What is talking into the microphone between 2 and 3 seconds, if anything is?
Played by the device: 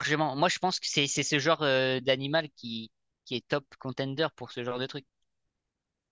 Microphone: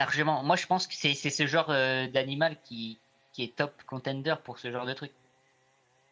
echo only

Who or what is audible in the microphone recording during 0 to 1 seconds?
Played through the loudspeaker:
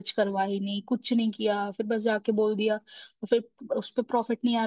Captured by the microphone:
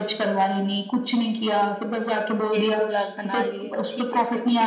echo only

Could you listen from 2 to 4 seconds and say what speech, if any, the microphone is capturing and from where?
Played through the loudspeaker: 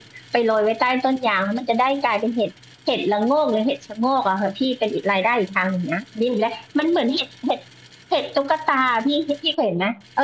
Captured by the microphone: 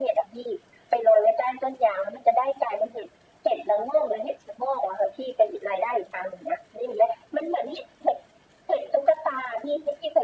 echo only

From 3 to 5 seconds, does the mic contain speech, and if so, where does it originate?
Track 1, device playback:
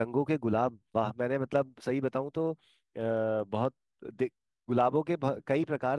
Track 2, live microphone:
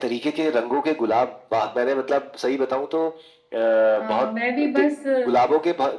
both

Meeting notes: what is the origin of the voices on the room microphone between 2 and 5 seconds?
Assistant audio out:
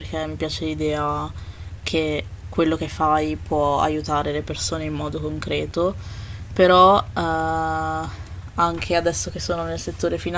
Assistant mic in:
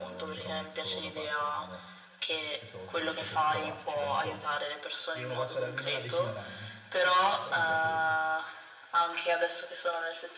both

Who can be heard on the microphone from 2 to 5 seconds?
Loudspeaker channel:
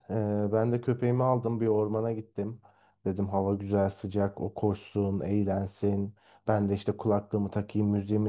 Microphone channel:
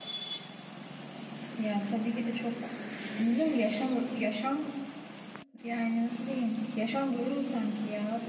user only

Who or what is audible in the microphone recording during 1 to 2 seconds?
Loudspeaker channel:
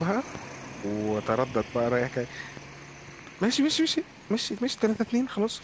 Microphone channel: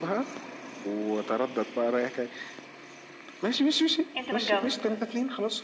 echo only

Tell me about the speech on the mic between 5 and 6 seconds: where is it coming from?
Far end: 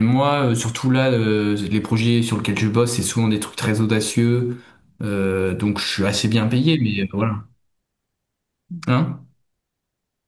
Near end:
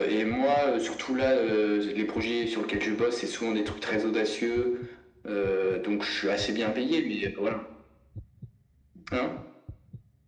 echo only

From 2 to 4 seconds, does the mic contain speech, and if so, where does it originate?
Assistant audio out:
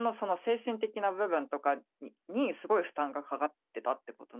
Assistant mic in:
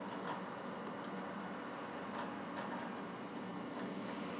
neither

